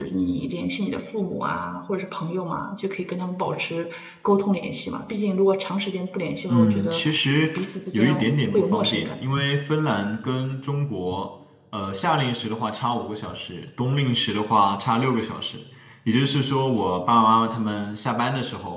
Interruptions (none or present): present